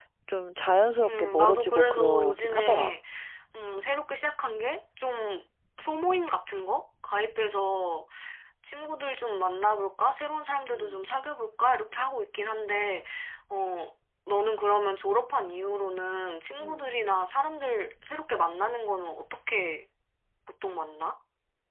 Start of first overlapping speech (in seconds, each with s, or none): 1.0 s